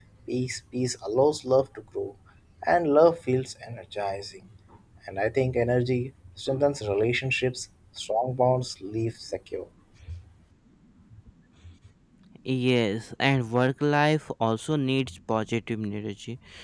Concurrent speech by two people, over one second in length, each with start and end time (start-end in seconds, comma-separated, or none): none